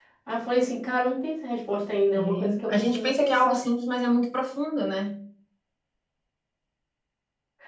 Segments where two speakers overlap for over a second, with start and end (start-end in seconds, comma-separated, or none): 2.2-3.6